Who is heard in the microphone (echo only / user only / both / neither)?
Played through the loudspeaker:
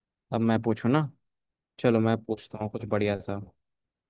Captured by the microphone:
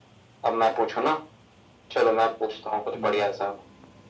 both